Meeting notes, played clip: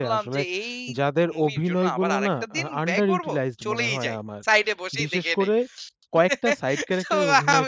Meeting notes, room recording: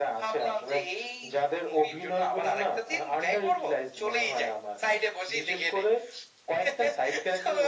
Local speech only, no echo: none

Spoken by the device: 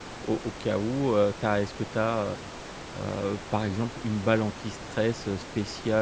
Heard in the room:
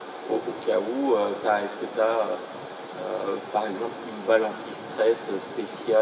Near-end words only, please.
none

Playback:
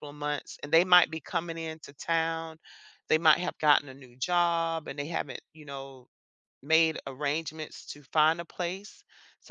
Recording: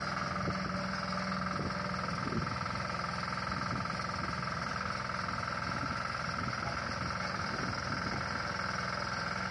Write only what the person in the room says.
none

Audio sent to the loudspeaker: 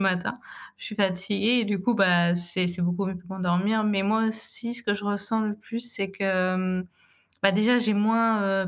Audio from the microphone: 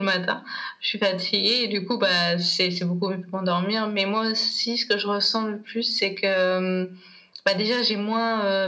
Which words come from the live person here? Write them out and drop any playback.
none

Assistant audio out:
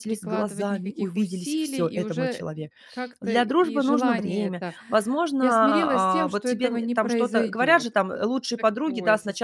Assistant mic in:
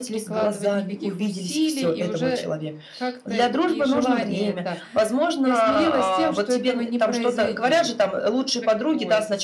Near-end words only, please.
none

